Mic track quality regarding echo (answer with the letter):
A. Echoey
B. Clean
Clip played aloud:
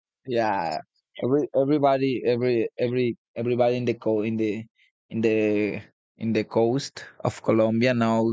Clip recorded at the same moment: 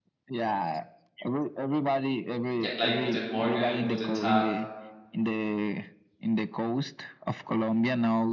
A